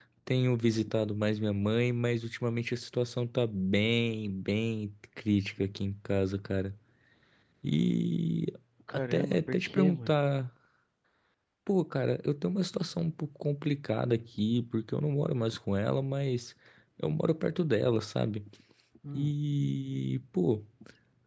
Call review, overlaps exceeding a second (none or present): present